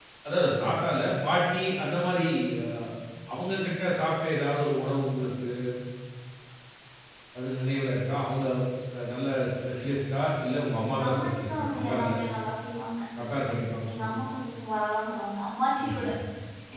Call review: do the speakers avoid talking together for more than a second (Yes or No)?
No